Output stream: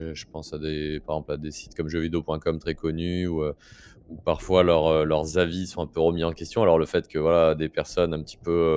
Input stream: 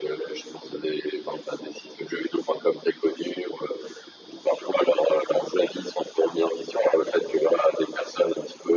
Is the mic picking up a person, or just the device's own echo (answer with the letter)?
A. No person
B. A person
A